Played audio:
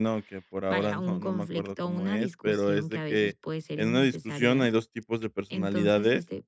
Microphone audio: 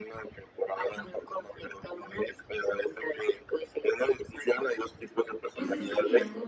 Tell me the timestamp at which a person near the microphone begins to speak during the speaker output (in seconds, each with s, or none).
5.5 s